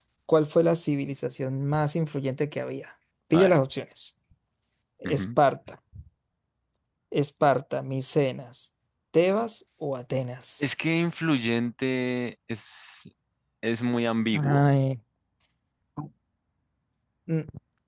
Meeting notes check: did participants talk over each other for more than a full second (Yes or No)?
No